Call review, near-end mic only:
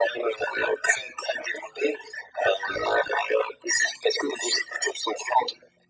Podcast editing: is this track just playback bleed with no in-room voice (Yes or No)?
Yes